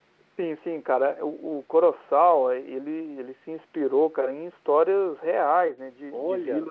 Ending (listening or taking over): listening